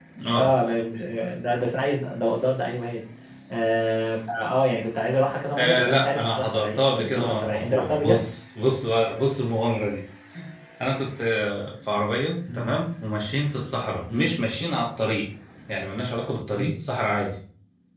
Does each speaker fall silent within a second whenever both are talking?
No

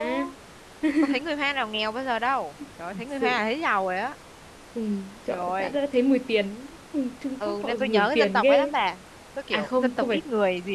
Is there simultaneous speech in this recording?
Yes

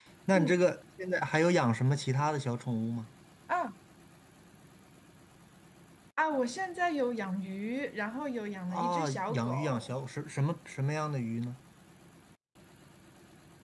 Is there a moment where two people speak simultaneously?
Yes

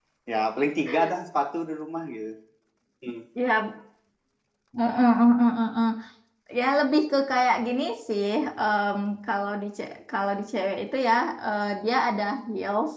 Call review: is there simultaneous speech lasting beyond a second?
No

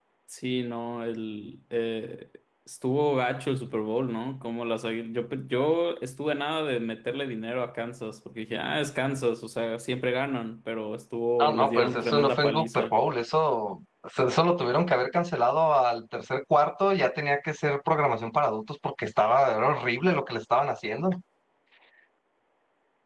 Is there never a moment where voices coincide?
No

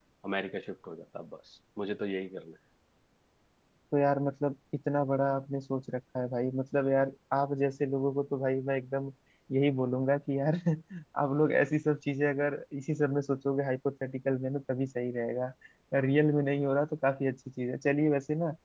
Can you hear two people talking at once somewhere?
No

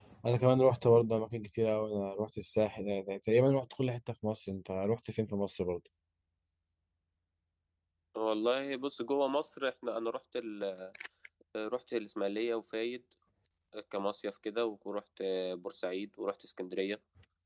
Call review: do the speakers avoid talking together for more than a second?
Yes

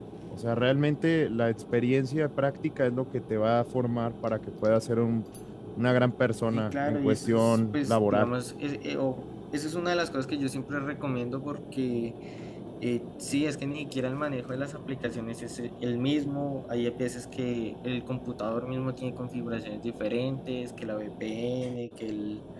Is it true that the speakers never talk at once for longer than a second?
No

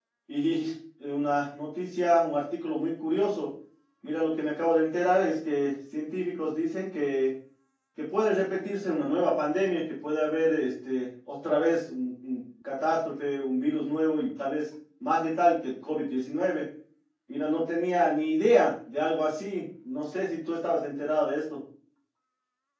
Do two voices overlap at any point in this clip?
No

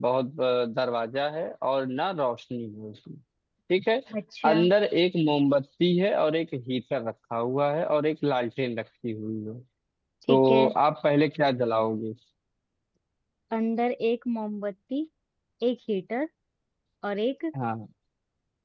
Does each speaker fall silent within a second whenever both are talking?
Yes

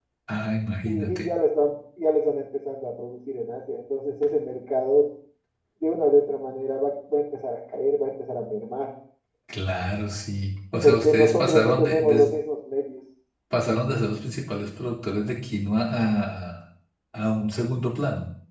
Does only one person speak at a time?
No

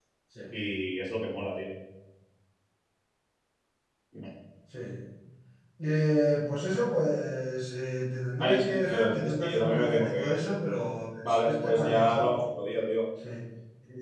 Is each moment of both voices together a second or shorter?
No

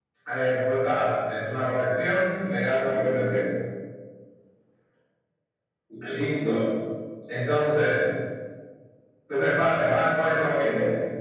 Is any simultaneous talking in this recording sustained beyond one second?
No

